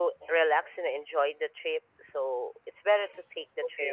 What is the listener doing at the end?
taking over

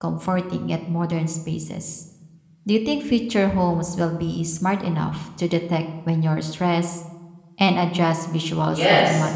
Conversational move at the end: taking over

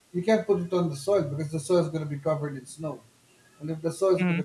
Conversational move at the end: listening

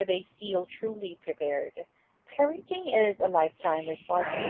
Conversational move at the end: taking over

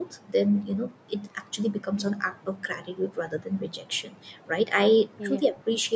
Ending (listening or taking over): listening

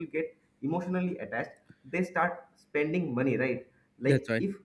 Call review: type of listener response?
listening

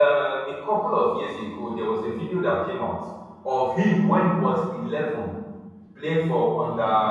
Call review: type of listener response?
listening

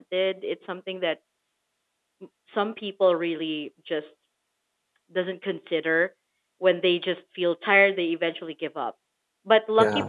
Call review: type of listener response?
listening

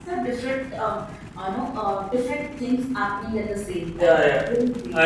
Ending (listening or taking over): taking over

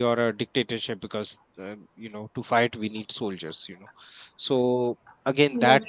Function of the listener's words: listening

